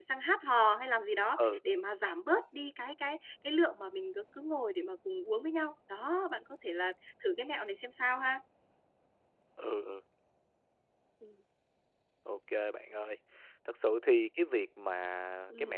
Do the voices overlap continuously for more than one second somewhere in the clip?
No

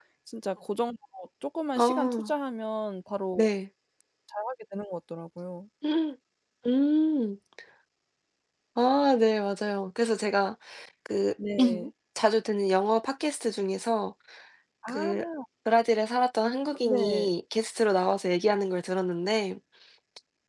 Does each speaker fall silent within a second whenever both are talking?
Yes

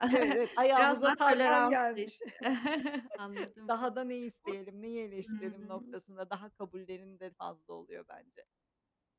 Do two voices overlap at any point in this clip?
Yes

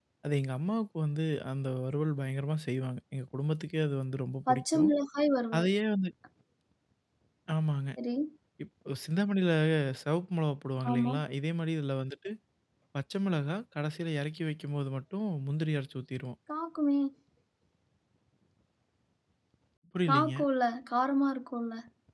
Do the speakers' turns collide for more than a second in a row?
No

